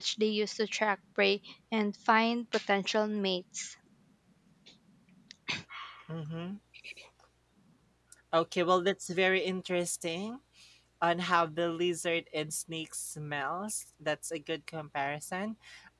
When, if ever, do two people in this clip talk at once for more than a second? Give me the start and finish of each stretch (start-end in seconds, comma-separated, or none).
none